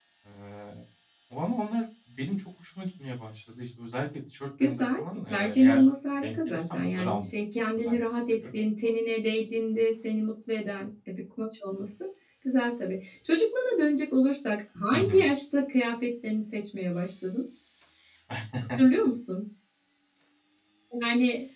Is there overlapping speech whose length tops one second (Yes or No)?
Yes